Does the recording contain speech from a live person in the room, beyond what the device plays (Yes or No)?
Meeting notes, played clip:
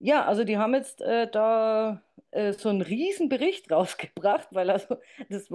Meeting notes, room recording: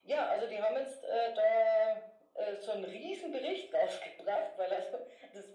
No